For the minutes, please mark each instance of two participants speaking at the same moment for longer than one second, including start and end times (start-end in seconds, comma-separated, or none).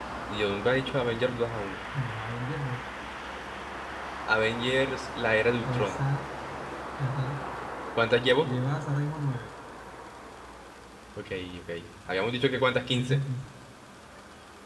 none